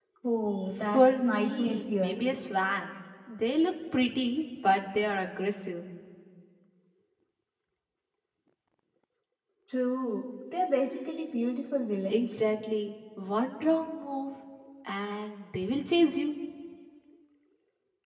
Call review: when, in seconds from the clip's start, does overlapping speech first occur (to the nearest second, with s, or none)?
1 s